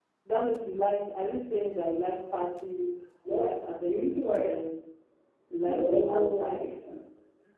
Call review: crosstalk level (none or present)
present